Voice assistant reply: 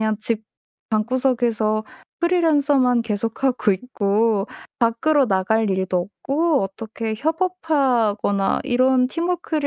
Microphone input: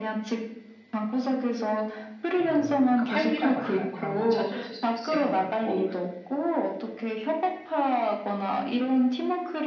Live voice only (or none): 그런 뭘 그러니까 활기라고 할까요? 그런 걸 찾으실 수 있을 것 같고